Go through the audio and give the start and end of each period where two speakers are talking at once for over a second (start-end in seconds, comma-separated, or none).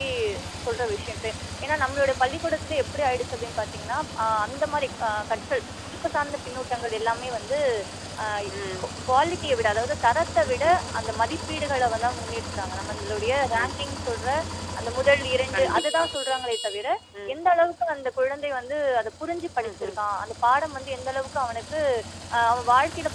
none